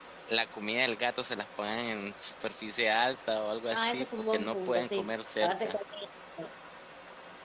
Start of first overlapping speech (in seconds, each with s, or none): 3.7 s